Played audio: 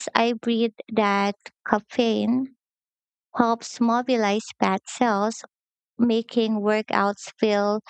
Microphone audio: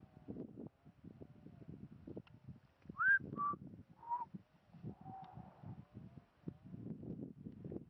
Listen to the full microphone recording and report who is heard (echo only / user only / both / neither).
neither